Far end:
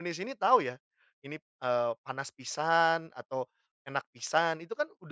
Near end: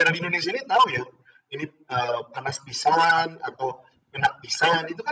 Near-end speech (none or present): none